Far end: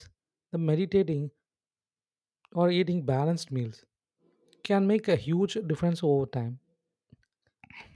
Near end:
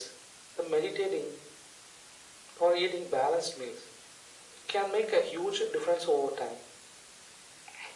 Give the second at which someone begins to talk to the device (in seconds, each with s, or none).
none